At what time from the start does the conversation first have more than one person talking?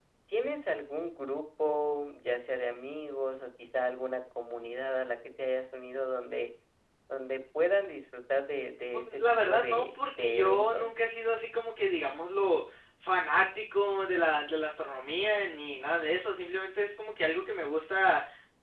9.1 s

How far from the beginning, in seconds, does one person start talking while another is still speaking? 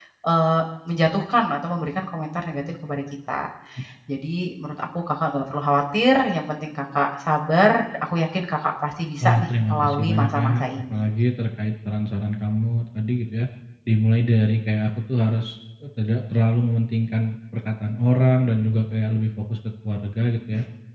9.2 s

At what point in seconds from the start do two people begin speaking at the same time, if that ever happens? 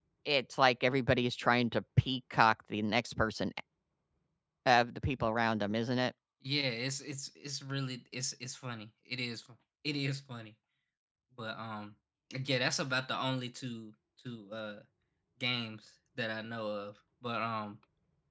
none

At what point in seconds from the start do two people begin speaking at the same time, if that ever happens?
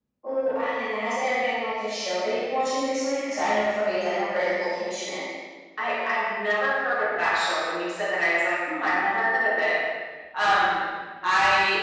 none

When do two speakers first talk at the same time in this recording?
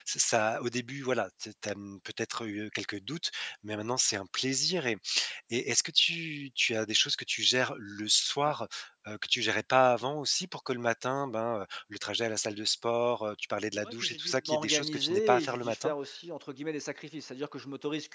13.8 s

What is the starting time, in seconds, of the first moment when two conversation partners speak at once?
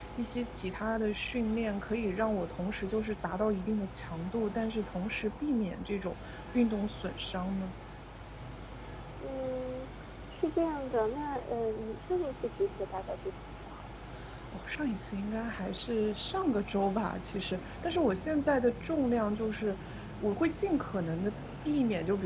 none

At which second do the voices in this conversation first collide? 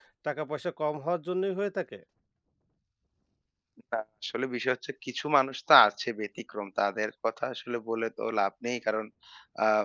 none

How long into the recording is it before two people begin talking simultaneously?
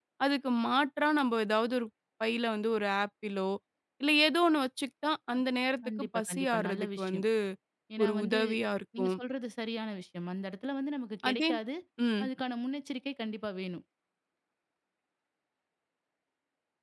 5.9 s

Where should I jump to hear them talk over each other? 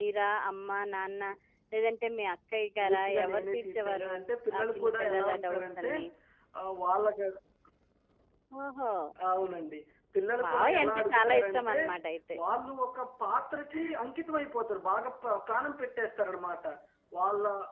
2.8 s

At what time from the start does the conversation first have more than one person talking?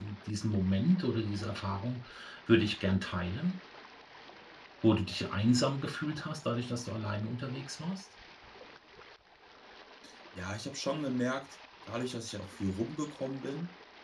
none

